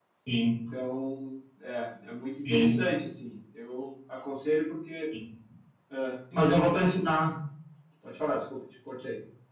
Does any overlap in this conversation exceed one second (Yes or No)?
No